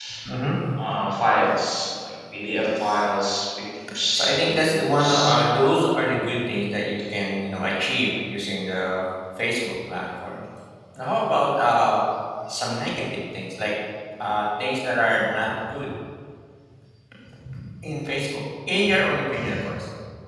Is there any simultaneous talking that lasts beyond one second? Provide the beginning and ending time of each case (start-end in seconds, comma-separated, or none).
4.1-5.3